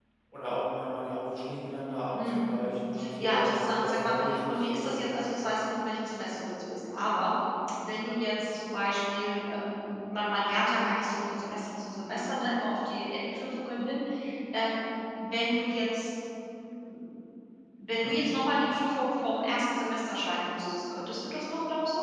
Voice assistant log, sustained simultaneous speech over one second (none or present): present